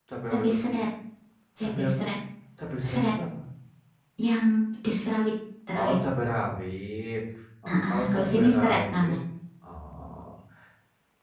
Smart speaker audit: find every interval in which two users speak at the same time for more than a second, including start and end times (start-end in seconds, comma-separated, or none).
7.7-9.2